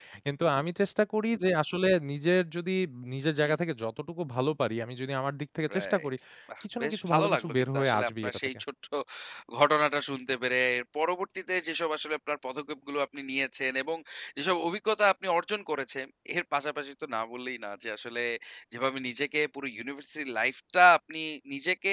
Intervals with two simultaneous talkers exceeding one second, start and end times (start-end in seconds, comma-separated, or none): 6.8-8.4